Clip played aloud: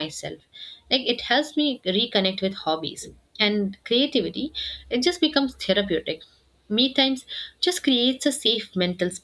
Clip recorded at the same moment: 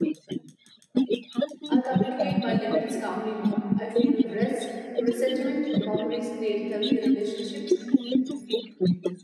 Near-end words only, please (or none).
I communicate my limits calmly now. I feel rest, resentment, boundaries create healthier relationships.